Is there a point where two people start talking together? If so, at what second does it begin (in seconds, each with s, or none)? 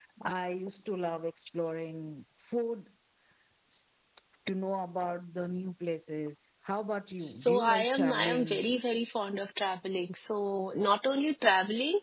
7.2 s